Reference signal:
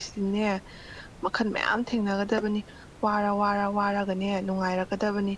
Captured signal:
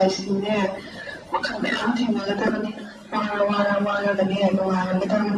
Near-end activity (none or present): none